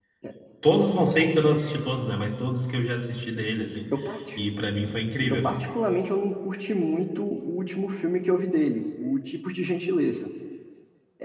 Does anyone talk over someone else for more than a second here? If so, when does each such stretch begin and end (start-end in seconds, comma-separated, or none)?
none